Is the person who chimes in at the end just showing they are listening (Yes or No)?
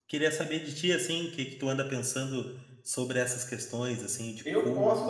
No